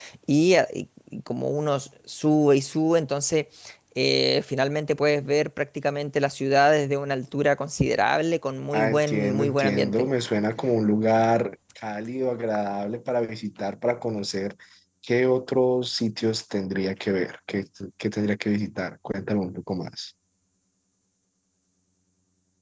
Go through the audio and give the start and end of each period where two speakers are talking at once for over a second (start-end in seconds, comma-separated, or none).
8.7-10.1